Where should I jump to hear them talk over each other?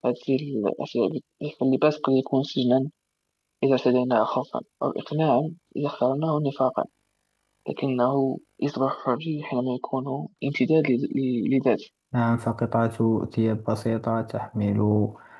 none

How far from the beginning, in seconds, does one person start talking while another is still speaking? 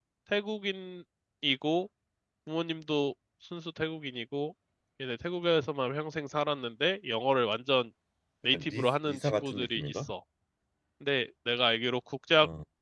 8.5 s

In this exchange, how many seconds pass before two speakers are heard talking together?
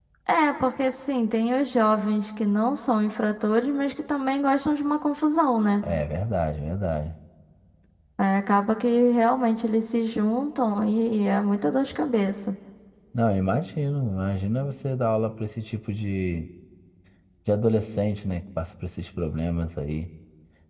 none

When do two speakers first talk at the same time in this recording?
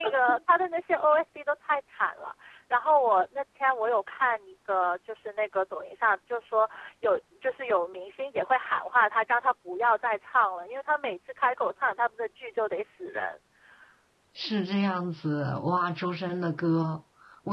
none

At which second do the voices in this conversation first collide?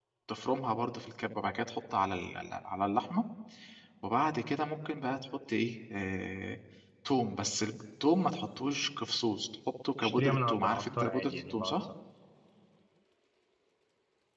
10.0 s

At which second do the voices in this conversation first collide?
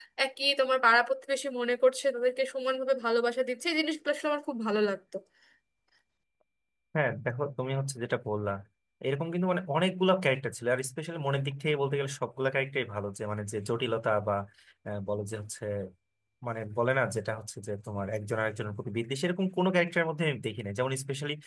none

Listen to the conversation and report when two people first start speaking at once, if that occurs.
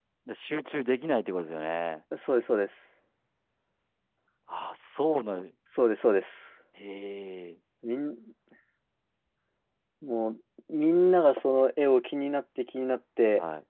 none

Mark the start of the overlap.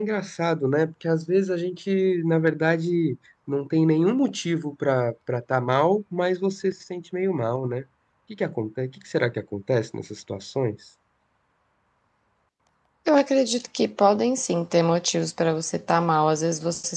none

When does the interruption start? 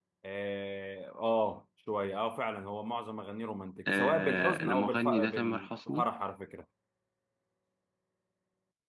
3.9 s

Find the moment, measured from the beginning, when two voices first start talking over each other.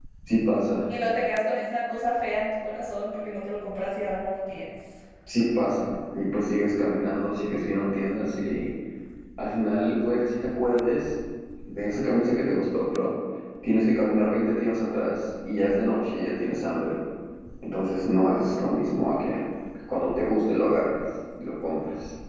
none

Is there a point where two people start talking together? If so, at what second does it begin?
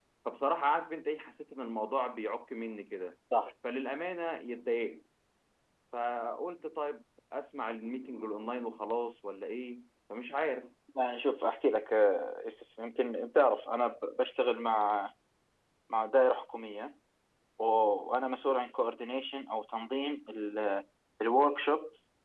none

